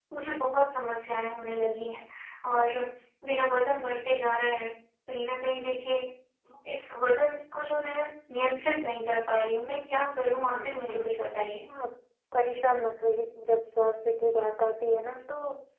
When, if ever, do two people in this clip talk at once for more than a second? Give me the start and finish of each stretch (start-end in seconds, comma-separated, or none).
10.4-11.6